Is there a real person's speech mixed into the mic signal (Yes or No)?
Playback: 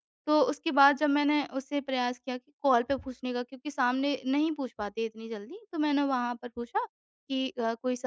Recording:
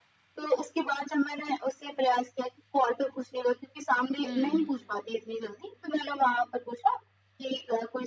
Yes